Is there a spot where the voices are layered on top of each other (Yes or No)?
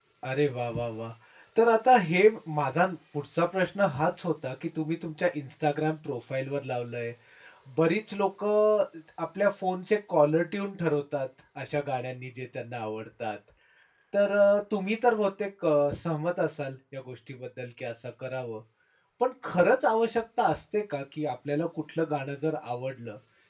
No